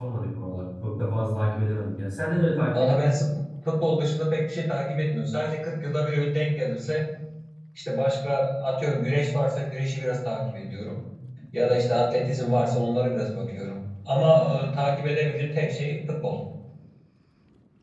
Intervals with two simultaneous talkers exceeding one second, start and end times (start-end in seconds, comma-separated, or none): none